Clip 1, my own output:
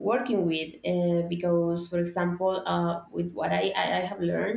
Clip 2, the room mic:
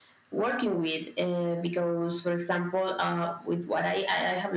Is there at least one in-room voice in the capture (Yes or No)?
No